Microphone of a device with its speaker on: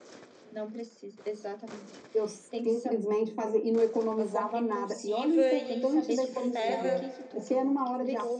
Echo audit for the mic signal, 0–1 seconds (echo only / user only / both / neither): echo only